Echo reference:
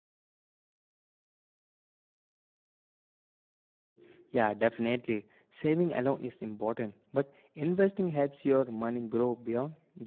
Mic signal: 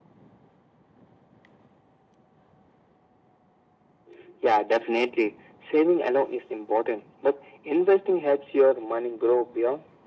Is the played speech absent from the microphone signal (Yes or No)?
No